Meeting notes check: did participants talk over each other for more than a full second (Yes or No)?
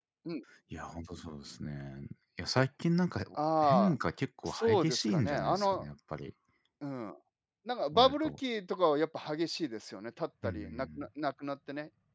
Yes